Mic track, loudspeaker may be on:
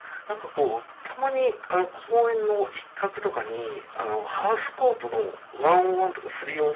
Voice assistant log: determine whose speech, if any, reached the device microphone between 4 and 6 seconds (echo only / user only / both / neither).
echo only